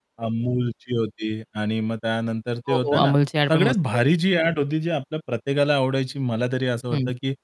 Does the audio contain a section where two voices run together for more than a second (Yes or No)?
No